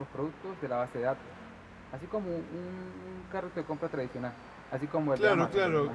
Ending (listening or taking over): taking over